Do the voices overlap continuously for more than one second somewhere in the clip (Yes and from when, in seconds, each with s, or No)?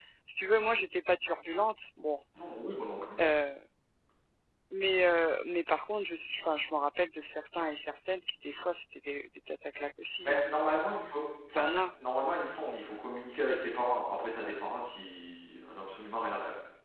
No